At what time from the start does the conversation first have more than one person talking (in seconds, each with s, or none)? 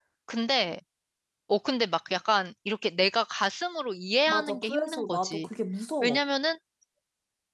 4.3 s